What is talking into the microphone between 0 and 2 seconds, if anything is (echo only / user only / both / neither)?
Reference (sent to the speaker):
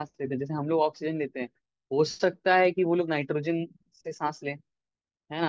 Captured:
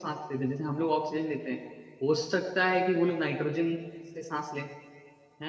echo only